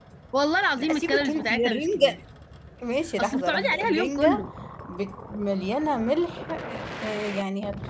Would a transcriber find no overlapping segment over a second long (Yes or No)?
No